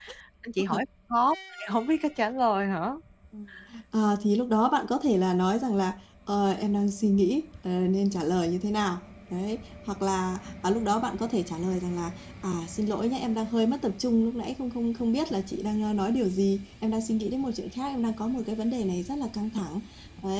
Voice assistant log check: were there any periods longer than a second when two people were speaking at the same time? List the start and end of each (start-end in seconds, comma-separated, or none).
none